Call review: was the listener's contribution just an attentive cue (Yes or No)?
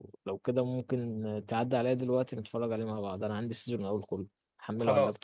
No